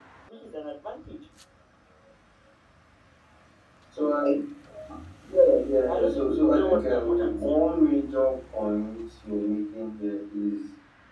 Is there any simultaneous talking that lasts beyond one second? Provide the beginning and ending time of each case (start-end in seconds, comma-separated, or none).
5.9-7.6